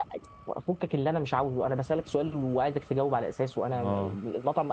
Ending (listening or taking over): listening